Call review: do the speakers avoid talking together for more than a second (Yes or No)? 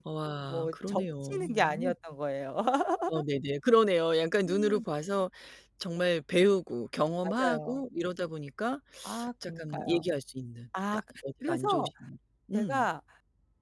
No